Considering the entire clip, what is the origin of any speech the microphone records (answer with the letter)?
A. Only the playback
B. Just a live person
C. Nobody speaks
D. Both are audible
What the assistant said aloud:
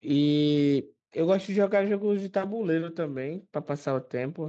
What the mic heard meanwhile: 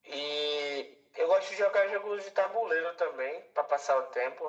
A